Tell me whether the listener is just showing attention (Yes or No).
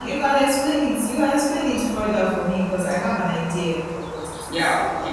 No